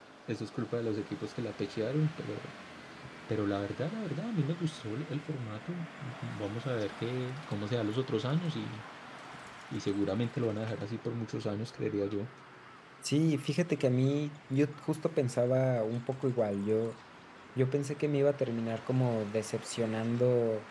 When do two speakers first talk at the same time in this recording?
none

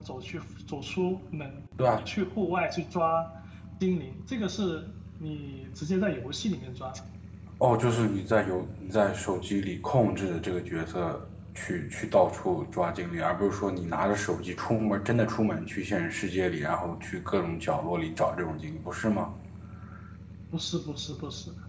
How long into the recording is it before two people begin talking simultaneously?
none

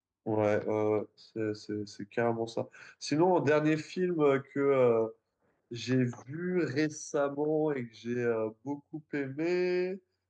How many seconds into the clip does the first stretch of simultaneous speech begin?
none

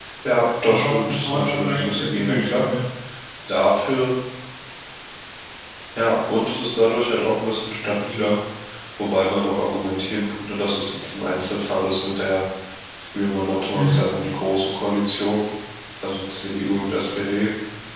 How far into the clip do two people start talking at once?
0.7 s

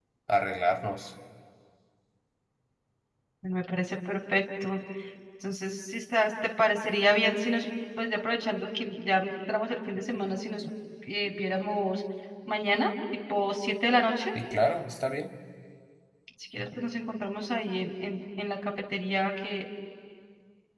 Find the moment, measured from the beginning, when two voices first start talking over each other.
none

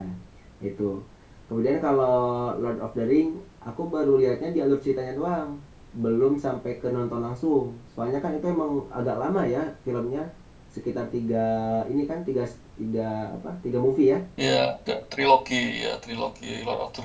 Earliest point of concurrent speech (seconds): none

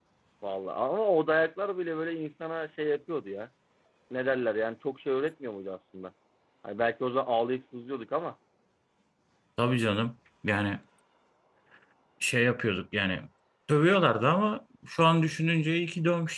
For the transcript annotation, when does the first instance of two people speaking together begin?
none

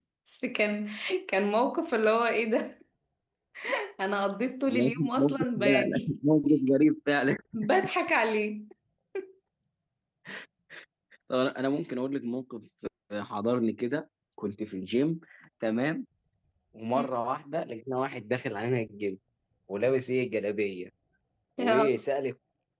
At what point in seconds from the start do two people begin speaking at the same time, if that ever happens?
4.7 s

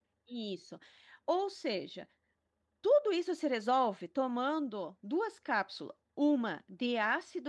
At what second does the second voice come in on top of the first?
none

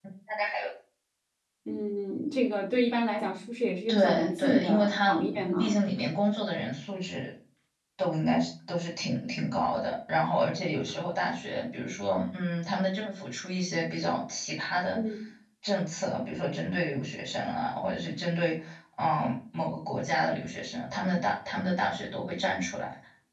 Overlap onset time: 3.9 s

